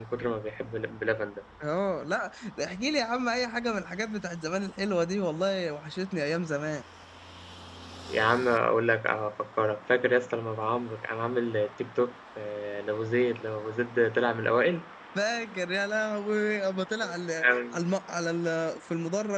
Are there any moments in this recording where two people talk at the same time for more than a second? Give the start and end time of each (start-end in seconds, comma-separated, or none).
none